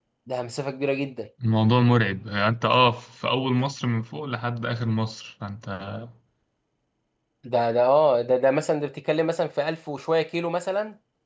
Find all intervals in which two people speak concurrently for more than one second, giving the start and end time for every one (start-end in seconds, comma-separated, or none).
none